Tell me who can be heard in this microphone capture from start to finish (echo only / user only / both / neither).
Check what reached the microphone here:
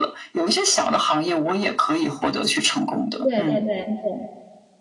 both